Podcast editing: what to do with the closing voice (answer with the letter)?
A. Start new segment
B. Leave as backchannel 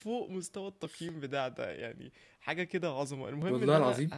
B